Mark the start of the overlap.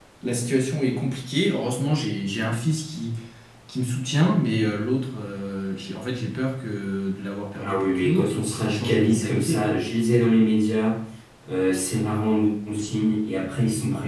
7.6 s

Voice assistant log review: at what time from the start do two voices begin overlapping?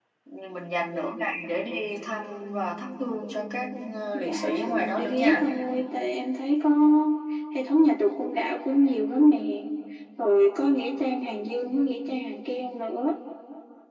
4.1 s

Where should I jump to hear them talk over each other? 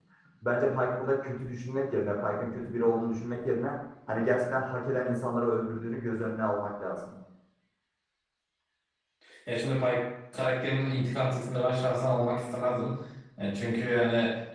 none

